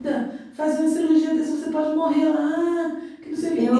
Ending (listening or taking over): listening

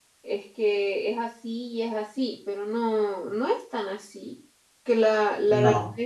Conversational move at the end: listening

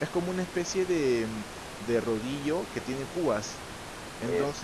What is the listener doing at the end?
listening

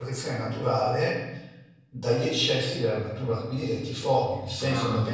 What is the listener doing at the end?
listening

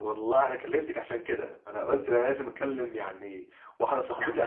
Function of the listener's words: listening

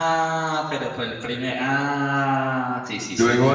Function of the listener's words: taking over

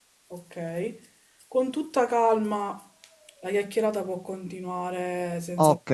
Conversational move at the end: taking over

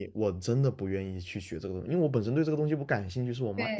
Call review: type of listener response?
taking over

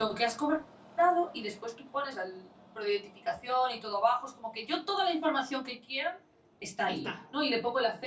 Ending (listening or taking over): listening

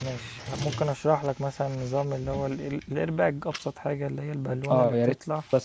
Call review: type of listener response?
taking over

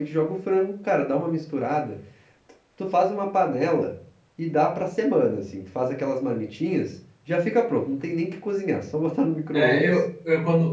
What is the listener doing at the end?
taking over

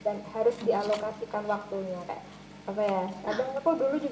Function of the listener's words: listening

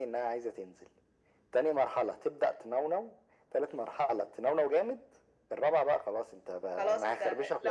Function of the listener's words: taking over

